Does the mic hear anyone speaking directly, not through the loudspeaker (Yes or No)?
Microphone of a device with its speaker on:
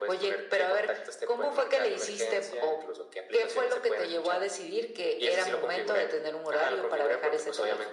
No